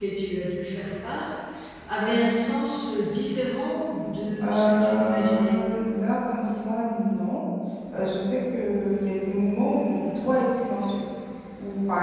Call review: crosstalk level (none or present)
present